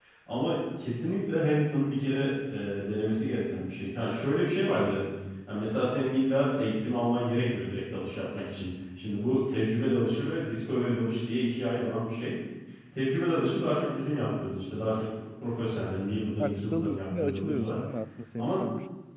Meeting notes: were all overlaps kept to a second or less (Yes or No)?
No